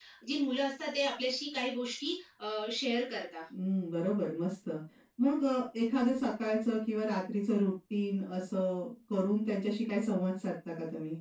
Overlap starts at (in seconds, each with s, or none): none